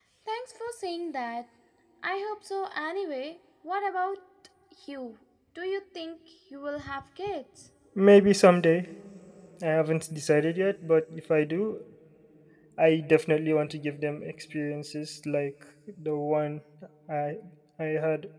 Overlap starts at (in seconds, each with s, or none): none